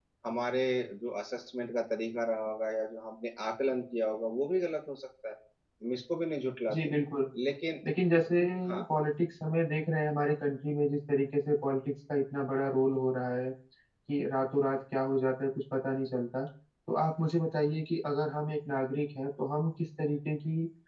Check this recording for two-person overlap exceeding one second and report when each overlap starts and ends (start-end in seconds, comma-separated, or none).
none